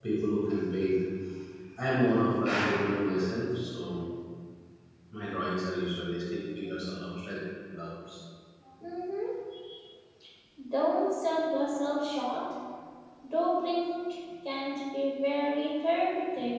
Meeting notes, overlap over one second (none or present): none